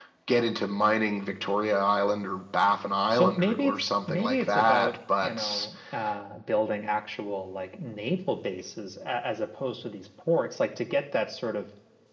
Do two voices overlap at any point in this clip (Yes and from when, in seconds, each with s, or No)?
Yes, from 3.1 s